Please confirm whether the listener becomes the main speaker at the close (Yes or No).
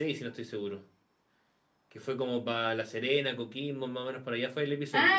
Yes